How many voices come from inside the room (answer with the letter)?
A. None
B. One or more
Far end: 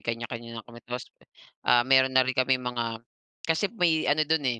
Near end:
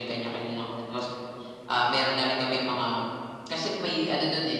A